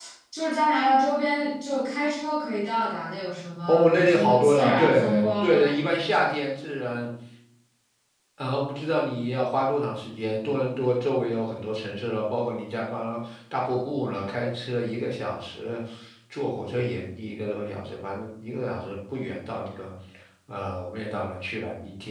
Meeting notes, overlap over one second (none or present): present